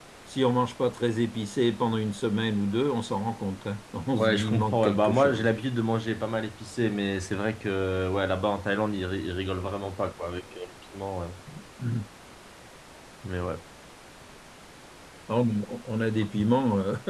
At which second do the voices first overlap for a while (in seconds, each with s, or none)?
4.2 s